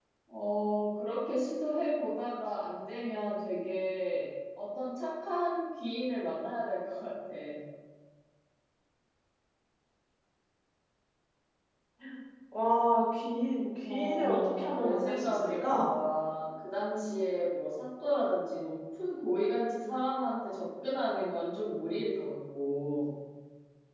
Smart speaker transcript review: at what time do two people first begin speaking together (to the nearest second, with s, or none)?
14 s